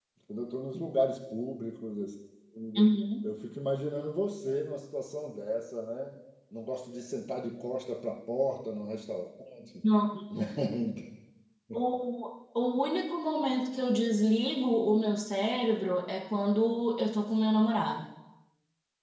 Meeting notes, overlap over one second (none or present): none